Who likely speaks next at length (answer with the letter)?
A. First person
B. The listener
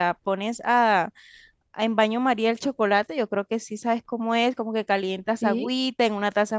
A